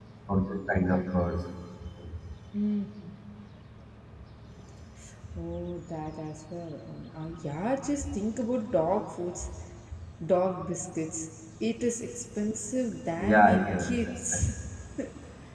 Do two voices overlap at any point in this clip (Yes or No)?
Yes